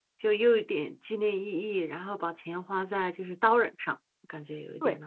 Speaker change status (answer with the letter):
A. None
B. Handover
B